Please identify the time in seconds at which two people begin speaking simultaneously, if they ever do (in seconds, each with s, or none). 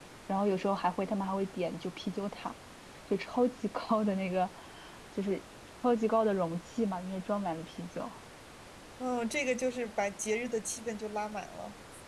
none